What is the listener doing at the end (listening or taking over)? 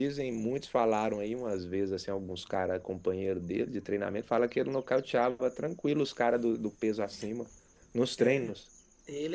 taking over